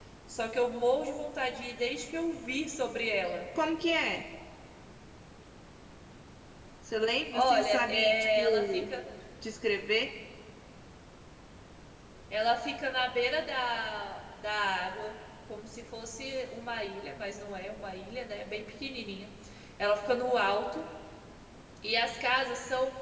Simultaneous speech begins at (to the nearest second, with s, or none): 7 s